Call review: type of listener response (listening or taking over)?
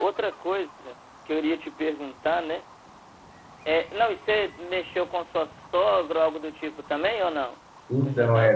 taking over